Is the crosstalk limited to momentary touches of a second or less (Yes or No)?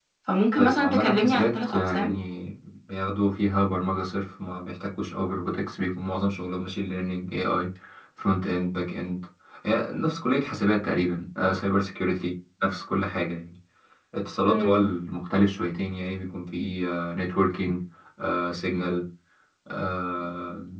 No